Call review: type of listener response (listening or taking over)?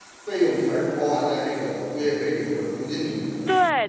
taking over